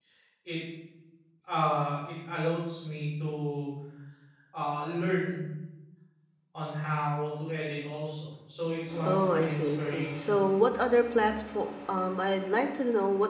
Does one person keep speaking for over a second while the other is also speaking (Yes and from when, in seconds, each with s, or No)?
Yes, from 8.9 s